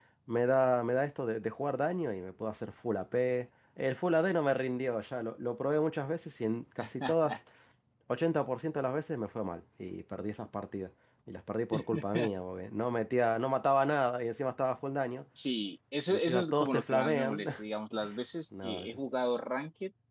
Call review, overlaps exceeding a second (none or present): present